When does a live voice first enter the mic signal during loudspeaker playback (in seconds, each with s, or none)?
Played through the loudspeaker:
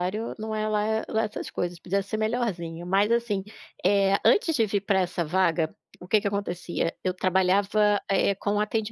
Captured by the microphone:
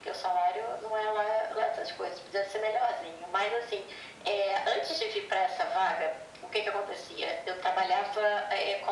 none